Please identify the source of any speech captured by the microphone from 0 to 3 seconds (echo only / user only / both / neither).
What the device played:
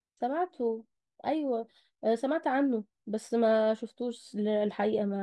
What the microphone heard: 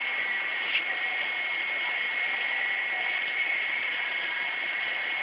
neither